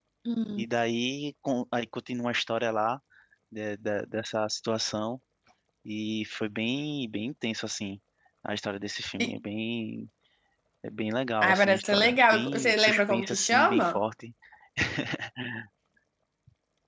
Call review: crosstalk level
present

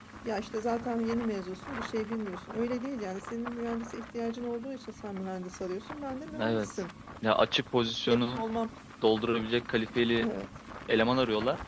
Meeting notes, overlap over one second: none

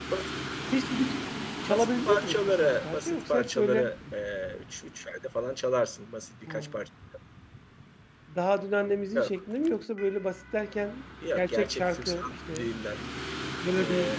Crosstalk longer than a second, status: present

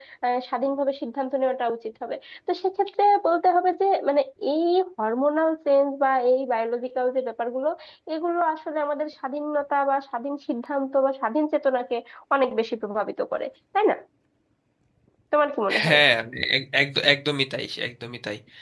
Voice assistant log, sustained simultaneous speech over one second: none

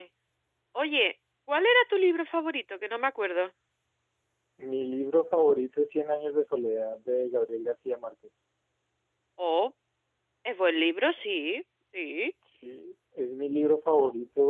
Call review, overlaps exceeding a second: none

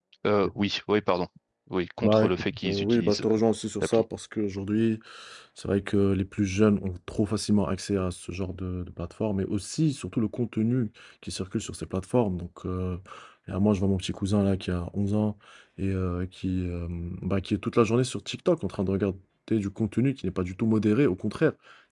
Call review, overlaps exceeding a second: present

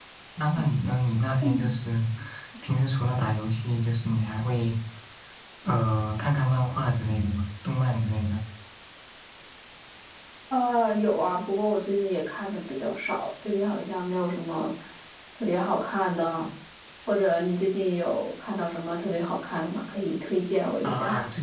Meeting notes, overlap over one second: none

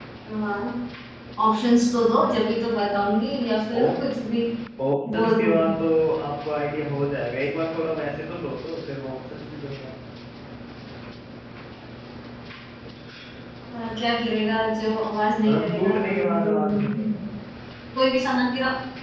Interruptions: present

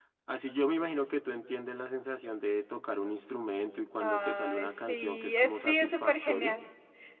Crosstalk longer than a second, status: present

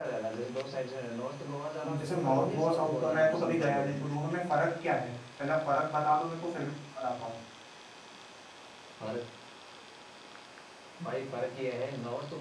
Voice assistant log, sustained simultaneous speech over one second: present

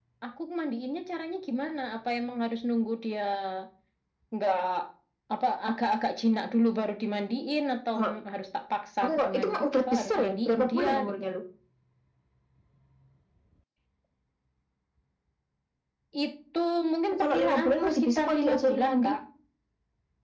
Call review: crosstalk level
present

